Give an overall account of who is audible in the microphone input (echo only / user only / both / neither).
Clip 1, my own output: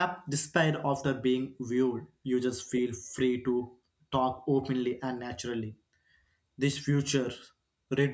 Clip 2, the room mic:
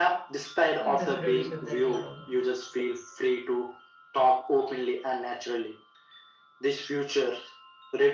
both